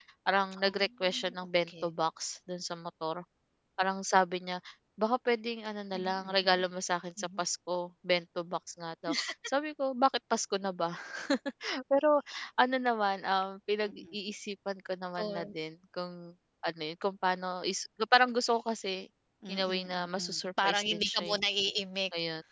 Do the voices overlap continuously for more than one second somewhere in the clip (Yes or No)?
Yes